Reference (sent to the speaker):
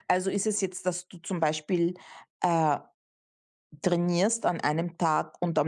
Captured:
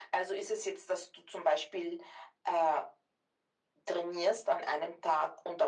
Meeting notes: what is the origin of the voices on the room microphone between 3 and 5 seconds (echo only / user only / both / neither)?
echo only